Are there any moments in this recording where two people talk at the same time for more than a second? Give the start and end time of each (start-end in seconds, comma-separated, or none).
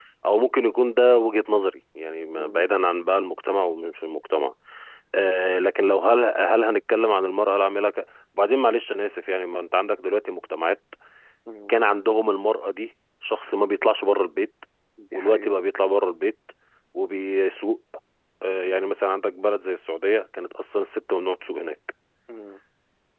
none